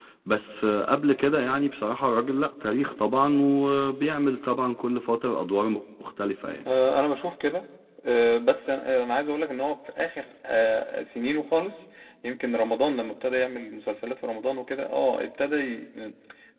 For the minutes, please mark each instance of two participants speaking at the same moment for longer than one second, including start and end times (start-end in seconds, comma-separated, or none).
none